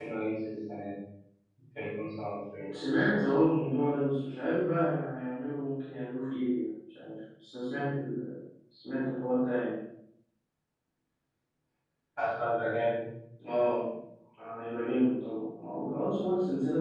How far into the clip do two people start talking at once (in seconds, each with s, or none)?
none